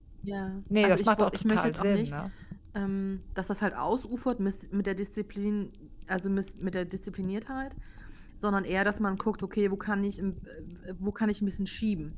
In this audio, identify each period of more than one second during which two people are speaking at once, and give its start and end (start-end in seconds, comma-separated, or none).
0.8-2.1